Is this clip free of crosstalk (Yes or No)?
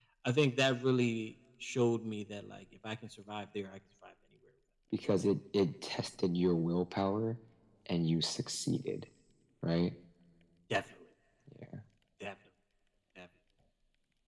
Yes